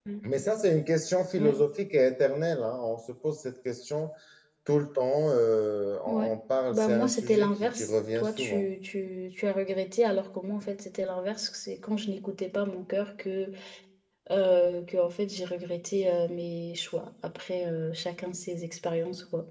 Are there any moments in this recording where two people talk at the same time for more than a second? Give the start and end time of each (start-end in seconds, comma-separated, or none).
6.7-8.6